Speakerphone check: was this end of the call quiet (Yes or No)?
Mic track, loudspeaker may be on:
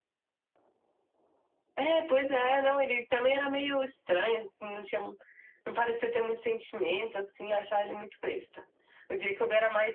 Yes